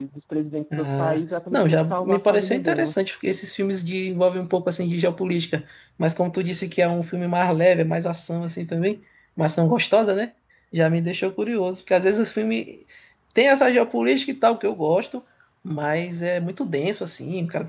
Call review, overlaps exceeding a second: present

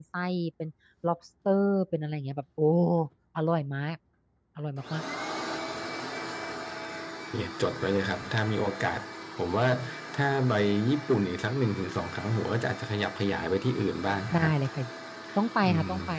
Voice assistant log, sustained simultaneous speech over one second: none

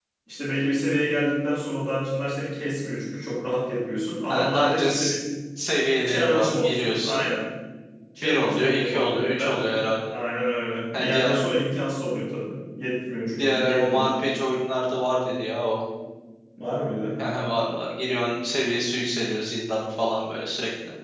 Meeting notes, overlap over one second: present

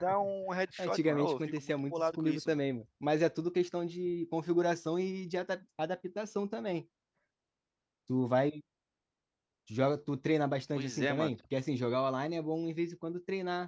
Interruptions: present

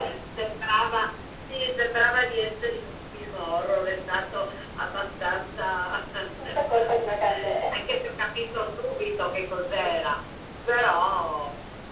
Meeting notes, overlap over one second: none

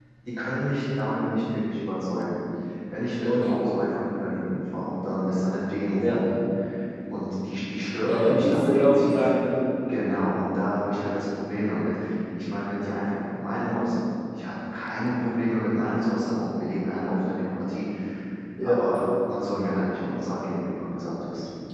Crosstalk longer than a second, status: present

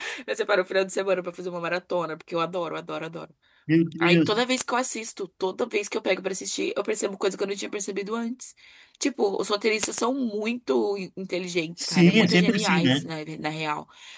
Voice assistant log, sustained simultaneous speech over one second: present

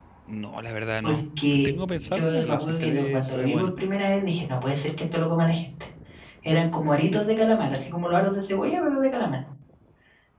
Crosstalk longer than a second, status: present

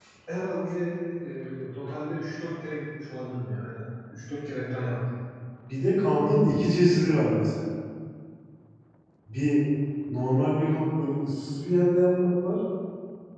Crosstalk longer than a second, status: none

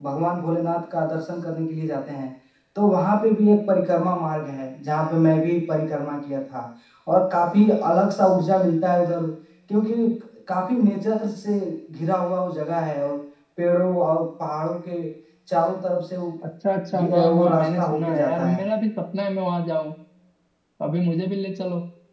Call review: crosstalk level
present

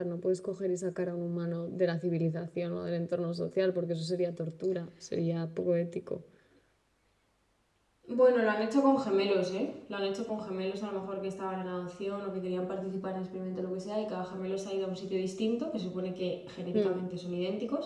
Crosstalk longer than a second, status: none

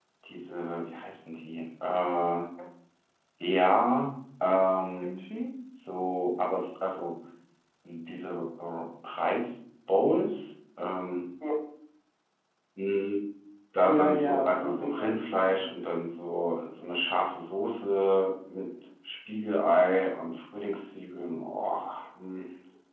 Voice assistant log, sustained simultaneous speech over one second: present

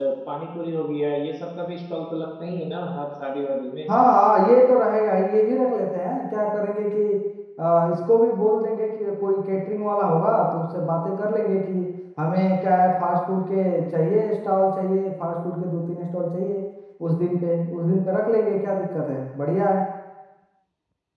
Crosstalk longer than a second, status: none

